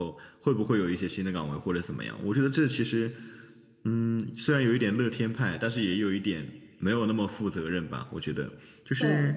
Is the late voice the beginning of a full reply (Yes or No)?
No